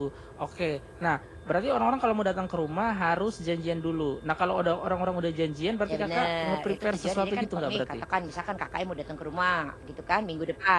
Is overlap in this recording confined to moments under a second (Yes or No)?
No